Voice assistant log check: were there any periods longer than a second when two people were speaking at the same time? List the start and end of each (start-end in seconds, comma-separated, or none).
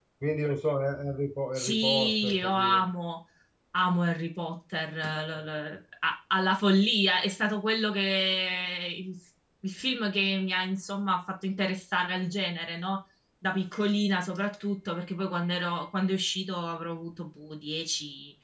1.6-2.9